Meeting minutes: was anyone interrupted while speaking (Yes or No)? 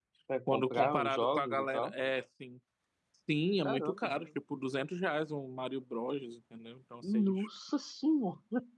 Yes